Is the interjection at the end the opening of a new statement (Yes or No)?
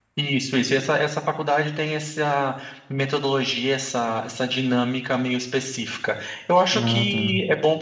No